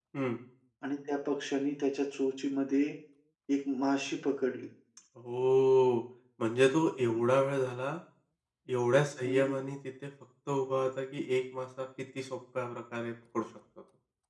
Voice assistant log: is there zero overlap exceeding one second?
Yes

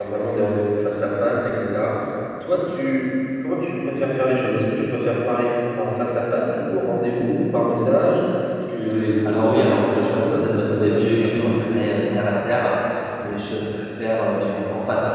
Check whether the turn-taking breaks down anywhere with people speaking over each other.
Yes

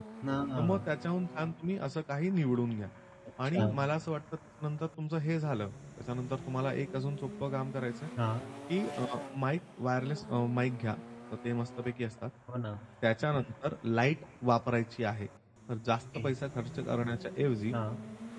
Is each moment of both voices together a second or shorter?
Yes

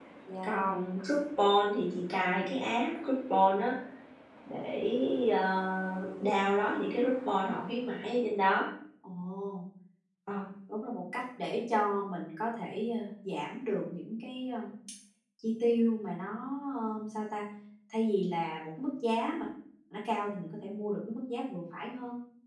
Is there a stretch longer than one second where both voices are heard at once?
No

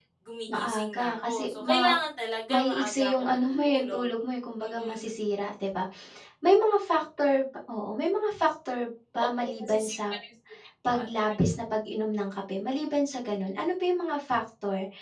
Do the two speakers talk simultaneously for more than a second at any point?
Yes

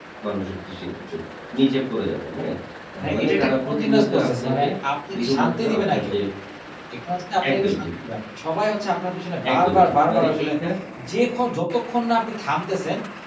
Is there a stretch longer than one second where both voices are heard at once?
Yes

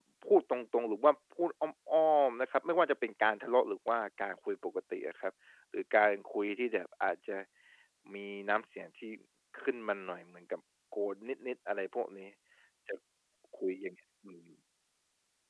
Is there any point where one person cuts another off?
No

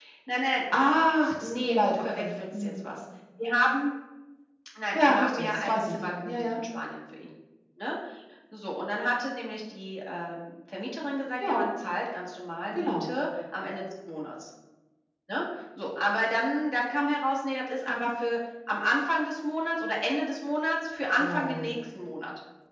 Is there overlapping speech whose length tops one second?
Yes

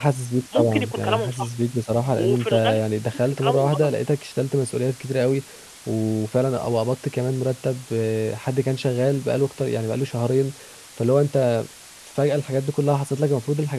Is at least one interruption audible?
Yes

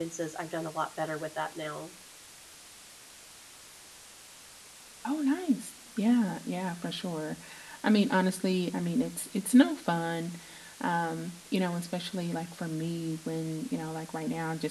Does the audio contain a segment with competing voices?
No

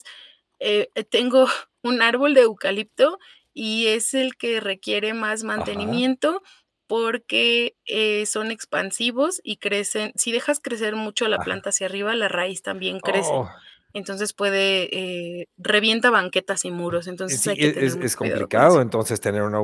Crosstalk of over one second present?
Yes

